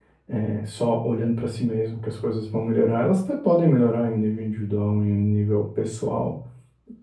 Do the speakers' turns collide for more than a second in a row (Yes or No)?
No